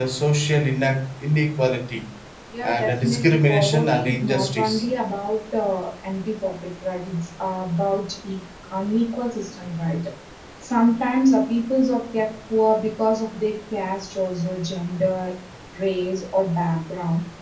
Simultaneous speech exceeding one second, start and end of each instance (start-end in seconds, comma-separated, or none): 2.6-4.8